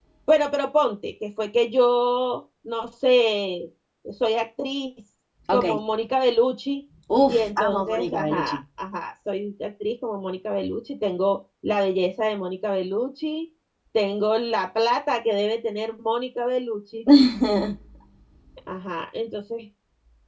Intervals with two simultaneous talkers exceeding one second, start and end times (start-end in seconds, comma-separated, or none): 7.3-8.6